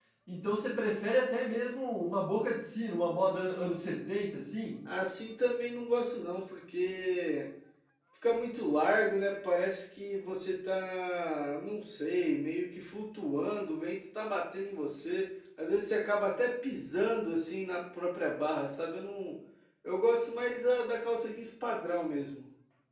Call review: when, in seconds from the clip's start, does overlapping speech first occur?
none

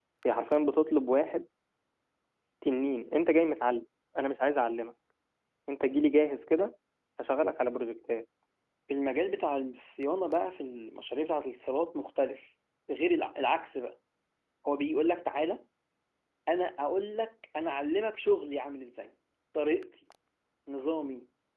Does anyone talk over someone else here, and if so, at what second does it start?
none

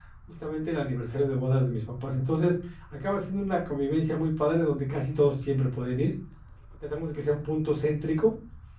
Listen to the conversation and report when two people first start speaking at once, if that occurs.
none

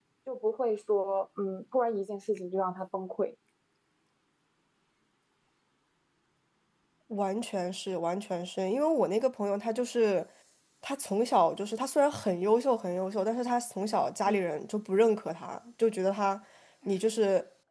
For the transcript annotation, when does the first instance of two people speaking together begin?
none

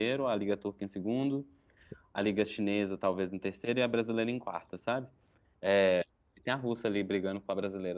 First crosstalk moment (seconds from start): none

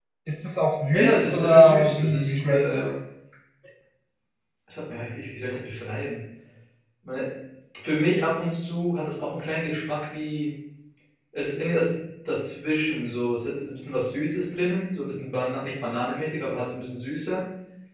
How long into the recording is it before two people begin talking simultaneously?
0.9 s

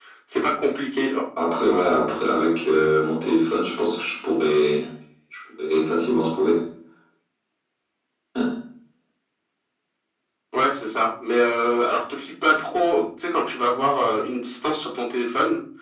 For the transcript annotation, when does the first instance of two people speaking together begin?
none

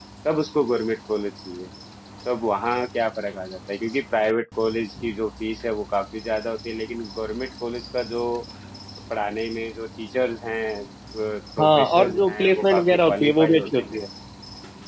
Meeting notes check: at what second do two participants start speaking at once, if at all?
11.6 s

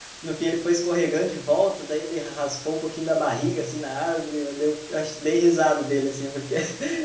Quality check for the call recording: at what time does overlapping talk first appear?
none

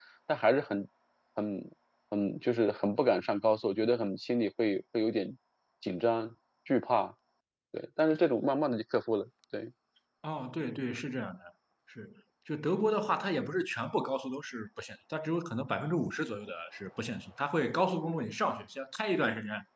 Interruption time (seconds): none

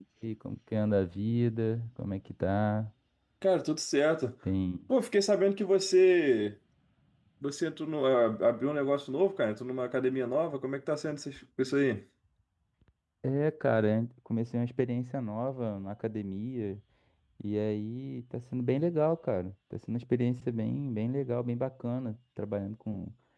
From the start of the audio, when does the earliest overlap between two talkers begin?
none

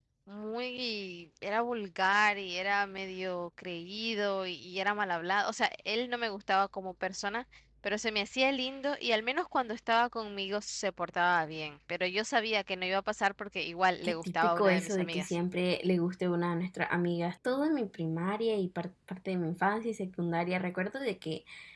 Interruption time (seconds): 14.0 s

